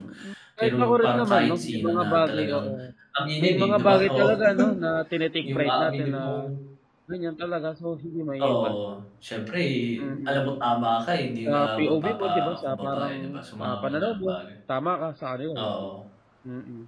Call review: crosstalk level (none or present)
present